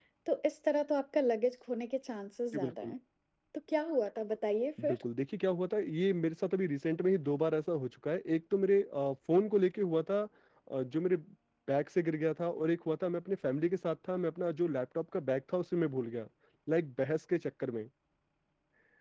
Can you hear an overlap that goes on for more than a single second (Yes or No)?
No